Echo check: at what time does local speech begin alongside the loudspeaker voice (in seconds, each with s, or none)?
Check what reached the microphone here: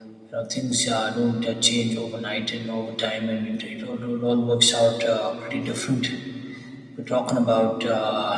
none